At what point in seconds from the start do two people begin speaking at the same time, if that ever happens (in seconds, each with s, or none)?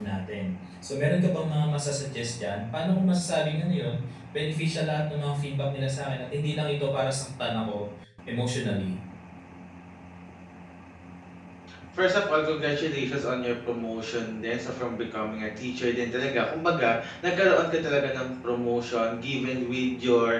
none